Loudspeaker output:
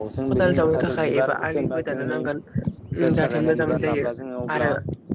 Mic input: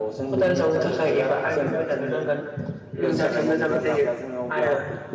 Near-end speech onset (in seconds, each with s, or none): none